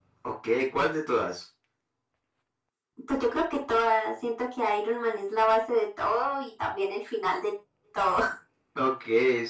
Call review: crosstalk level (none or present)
none